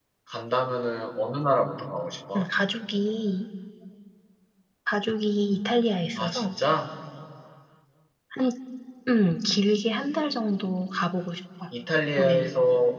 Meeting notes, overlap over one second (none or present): none